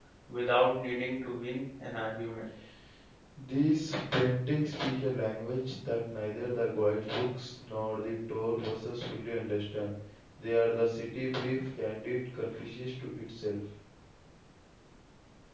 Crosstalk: none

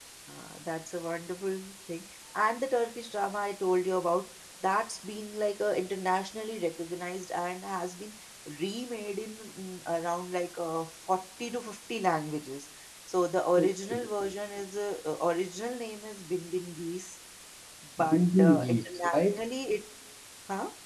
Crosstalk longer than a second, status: present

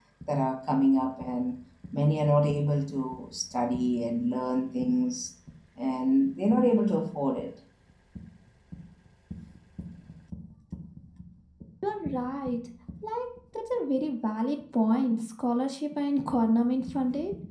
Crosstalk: none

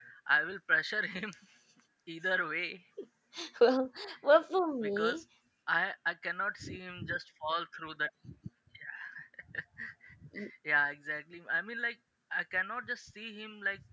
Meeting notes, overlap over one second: none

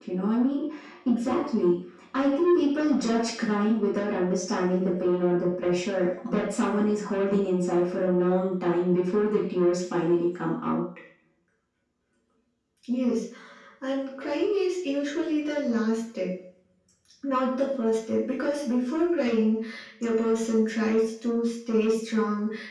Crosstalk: none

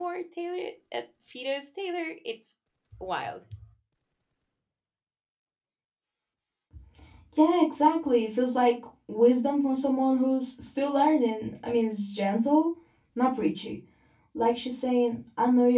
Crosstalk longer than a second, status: none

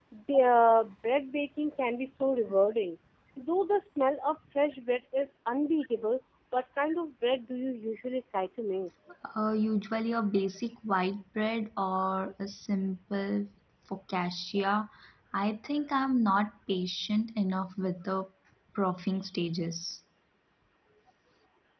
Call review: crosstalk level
none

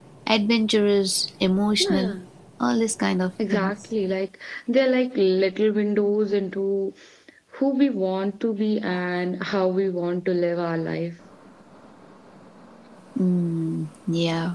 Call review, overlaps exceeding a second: none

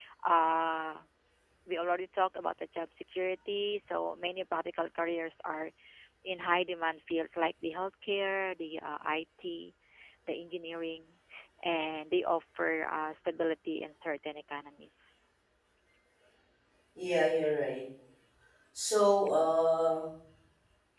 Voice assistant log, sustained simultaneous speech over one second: none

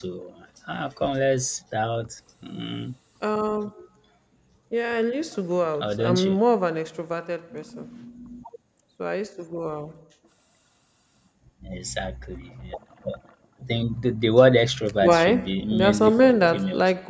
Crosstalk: present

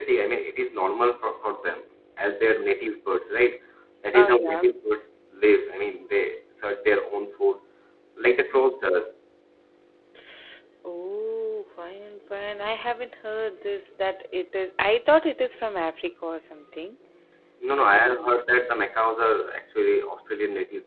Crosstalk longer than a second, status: none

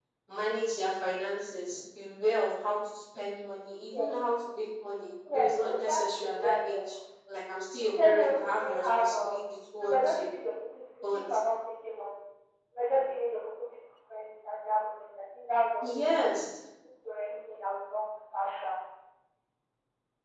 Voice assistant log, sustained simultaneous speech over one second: present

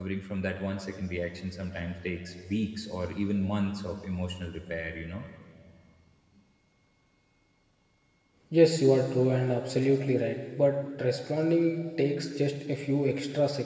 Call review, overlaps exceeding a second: none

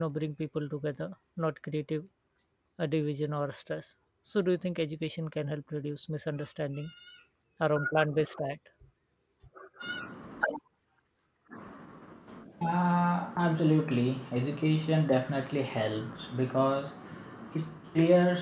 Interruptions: none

